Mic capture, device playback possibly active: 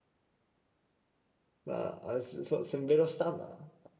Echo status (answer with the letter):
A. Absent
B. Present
A